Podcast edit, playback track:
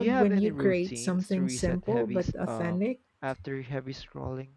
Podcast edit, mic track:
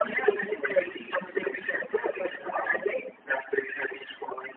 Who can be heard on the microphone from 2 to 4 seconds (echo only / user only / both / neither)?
echo only